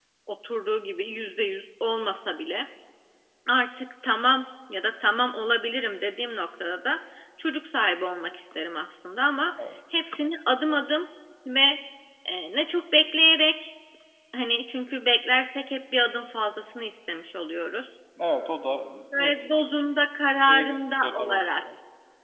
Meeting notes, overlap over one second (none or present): present